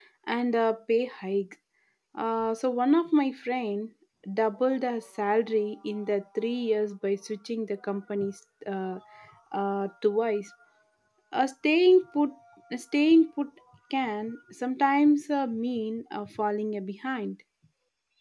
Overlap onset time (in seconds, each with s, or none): none